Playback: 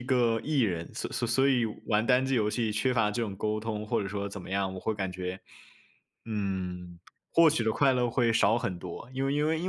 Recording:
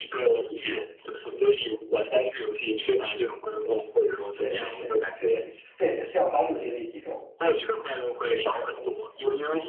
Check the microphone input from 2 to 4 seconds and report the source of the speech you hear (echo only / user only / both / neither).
echo only